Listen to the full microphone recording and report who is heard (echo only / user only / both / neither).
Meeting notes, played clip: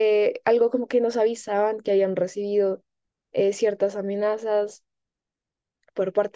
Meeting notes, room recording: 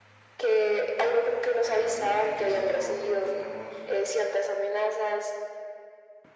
both